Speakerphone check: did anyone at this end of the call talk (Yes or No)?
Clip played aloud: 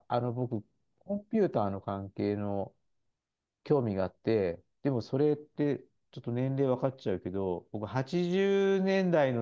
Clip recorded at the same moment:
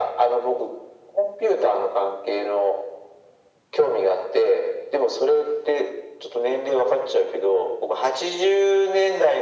No